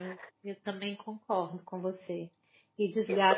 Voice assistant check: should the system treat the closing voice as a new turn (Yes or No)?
No